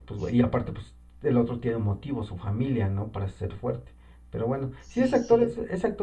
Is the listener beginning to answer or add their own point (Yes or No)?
No